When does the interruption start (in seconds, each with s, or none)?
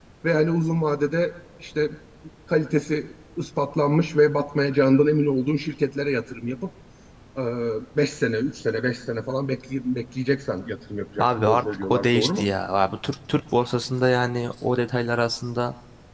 11.2 s